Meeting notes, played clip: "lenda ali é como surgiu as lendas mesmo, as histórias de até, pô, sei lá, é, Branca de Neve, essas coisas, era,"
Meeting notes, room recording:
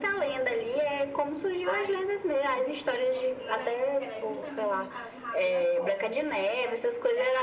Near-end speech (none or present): present